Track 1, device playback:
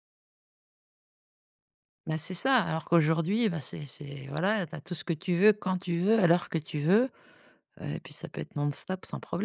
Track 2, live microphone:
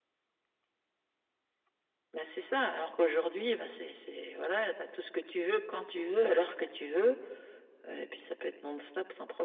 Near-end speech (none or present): none